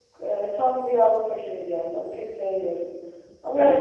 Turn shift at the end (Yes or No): No